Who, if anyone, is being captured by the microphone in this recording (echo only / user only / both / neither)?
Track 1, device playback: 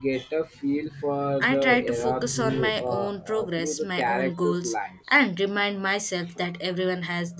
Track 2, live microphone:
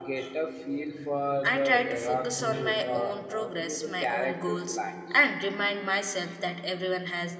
echo only